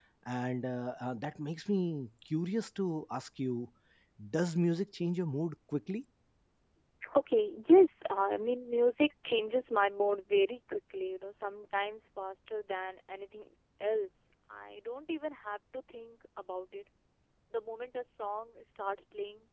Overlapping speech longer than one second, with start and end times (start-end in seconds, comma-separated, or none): none